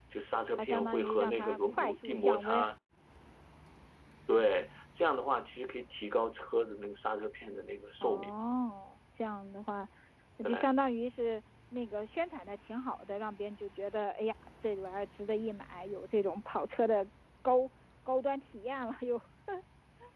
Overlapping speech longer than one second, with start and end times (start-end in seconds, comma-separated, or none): 0.6-2.7